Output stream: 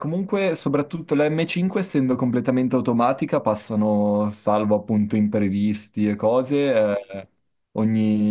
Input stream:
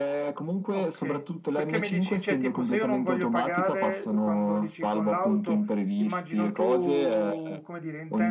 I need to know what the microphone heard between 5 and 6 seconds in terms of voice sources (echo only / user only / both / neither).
both